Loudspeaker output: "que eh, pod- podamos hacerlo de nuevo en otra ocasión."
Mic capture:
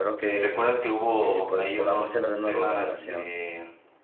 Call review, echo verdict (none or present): present